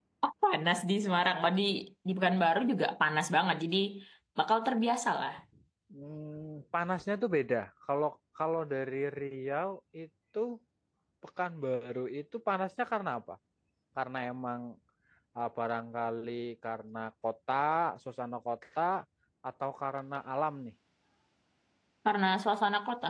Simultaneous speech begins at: none

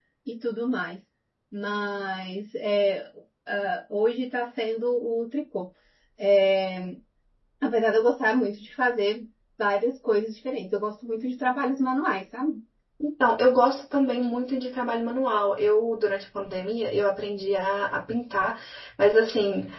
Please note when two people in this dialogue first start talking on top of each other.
none

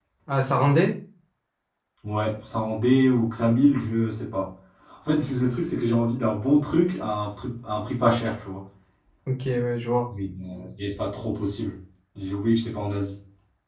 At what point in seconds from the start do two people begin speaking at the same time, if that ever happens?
none

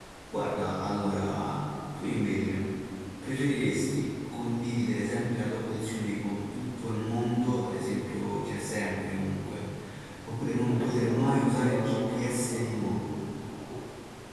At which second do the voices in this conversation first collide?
10.6 s

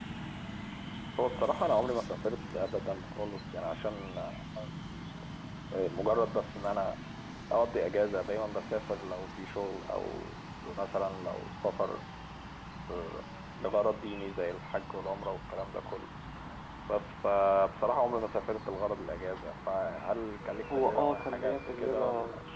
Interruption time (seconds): 20.6 s

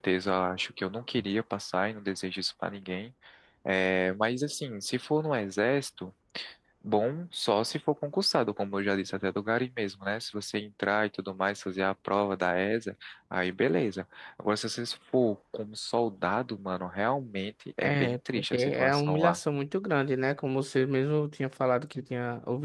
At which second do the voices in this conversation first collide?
17.8 s

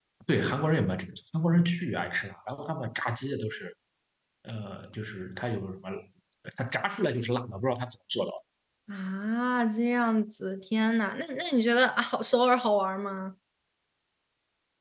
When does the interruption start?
none

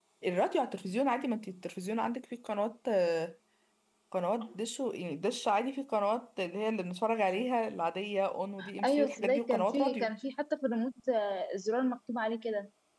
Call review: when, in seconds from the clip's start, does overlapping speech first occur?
8.8 s

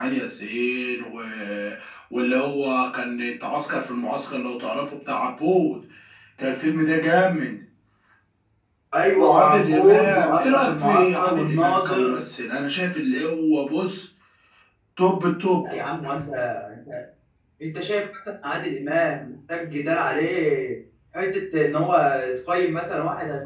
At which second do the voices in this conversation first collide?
9.2 s

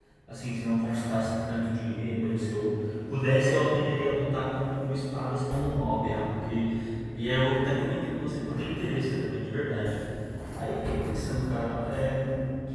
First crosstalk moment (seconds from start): none

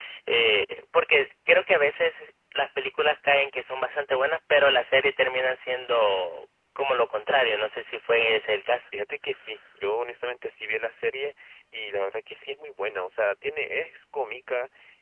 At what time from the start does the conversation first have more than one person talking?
none

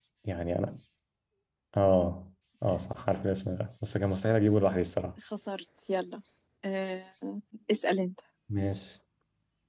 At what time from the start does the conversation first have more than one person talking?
none

